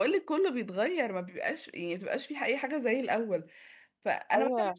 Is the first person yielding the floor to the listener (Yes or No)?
No